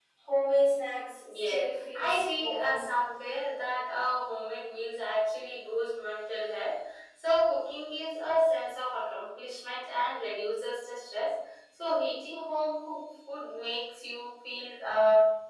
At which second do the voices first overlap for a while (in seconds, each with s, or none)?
1.2 s